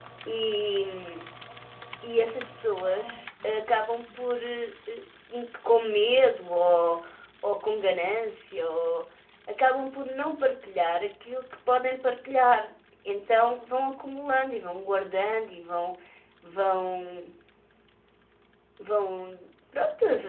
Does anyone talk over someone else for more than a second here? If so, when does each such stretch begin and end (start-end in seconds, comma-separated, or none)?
none